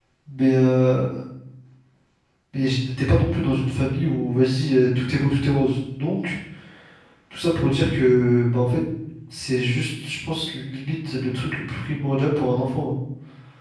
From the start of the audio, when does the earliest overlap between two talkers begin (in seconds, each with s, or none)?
none